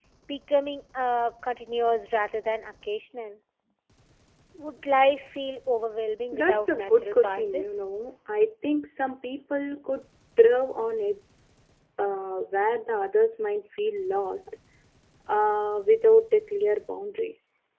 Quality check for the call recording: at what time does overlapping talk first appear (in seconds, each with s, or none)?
6.3 s